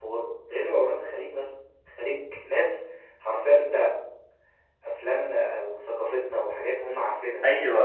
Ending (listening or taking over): taking over